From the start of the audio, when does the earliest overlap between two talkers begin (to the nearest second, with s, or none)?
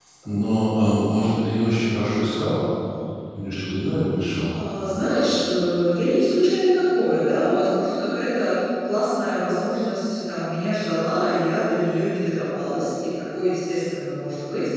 none